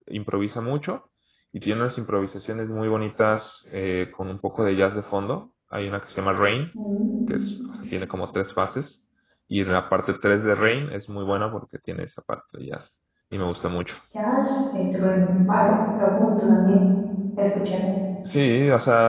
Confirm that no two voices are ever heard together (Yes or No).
Yes